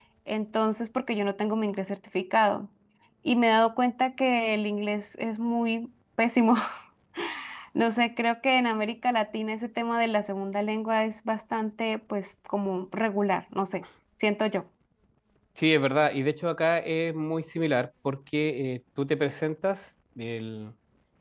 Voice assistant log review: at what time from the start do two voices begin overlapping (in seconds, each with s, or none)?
none